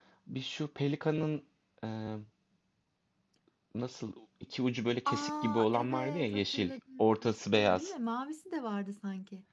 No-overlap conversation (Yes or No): No